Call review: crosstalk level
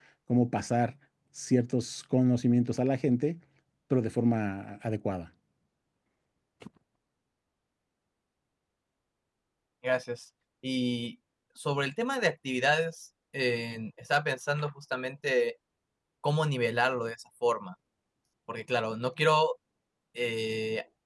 none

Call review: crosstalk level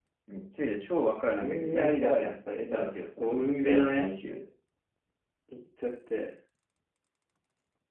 present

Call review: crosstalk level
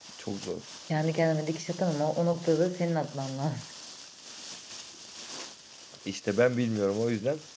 none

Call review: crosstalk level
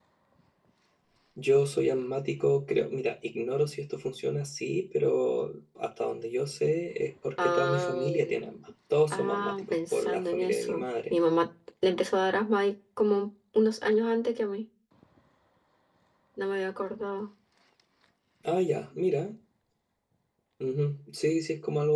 present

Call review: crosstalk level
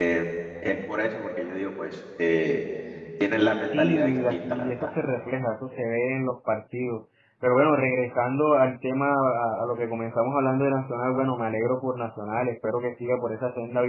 present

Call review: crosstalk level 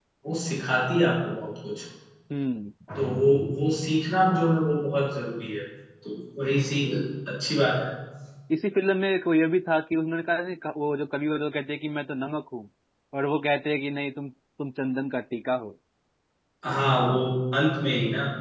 none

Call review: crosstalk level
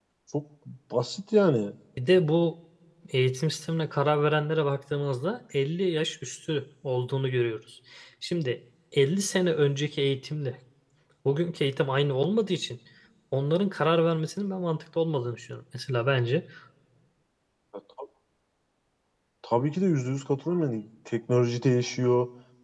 none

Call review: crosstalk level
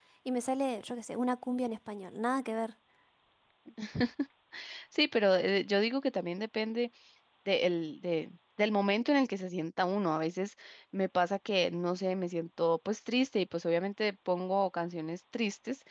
none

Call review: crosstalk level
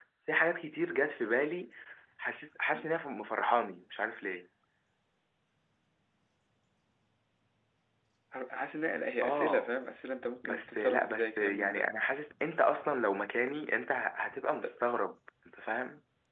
present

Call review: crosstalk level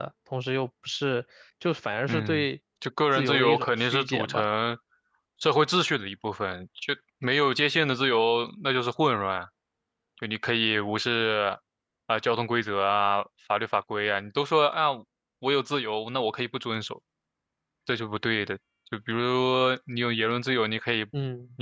present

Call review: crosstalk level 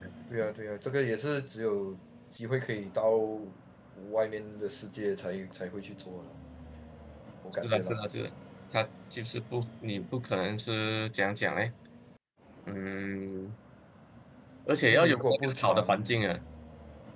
present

